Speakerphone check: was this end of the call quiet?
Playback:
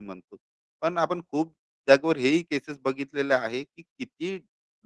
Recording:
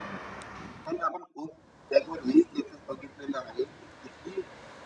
Yes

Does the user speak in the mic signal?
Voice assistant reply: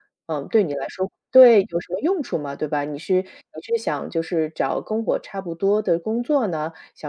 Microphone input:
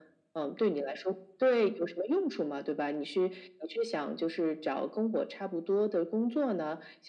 No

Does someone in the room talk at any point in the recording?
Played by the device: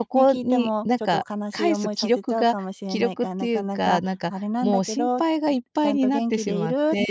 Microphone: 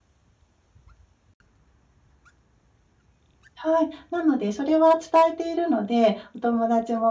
Yes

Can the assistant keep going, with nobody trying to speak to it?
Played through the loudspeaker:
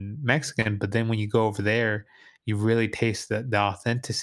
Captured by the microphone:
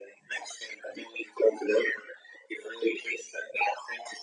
Yes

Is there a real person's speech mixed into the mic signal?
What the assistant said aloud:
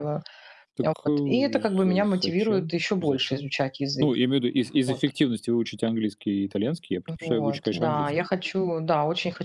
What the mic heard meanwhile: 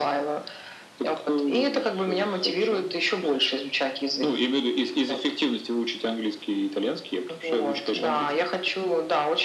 No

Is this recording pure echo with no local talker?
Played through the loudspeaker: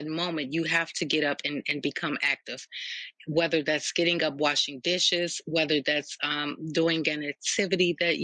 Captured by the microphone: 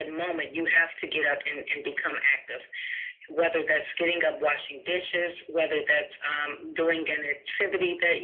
Yes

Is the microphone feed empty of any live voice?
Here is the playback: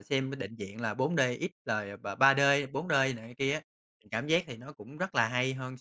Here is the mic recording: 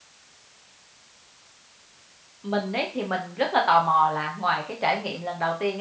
No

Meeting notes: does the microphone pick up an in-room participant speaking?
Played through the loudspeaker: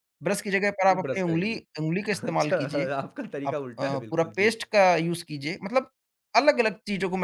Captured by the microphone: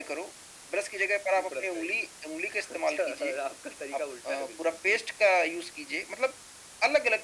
No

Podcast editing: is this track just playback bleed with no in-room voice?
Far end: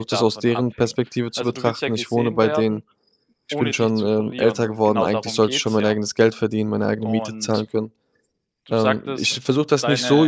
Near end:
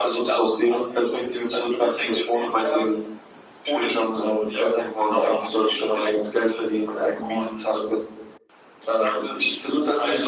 Yes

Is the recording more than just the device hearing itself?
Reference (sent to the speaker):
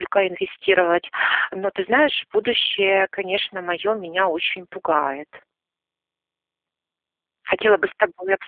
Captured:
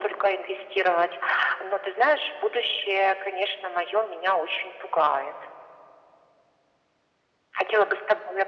No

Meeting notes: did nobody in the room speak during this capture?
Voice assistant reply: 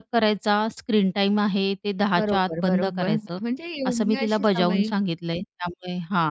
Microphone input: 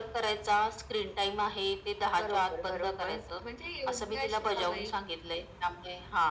Yes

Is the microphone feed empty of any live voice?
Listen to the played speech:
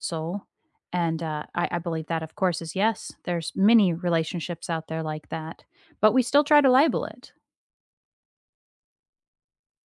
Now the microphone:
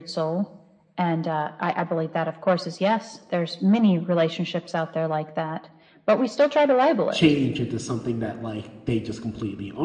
No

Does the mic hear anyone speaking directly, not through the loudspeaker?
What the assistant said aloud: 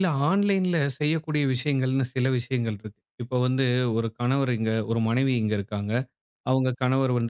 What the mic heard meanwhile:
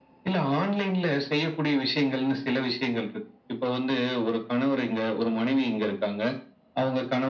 No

